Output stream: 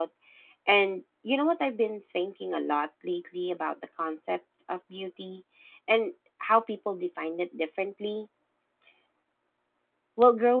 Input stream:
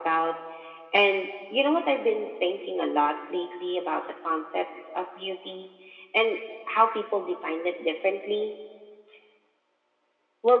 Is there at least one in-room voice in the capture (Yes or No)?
No